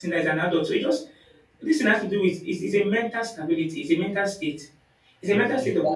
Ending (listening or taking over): taking over